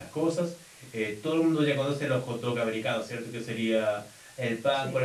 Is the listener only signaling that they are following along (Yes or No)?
Yes